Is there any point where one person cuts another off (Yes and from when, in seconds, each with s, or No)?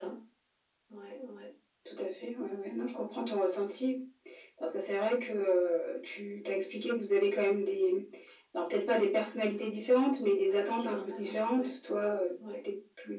Yes, from 10.3 s